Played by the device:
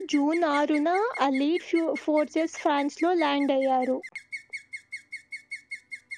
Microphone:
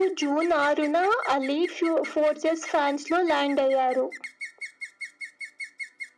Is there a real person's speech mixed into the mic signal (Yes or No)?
No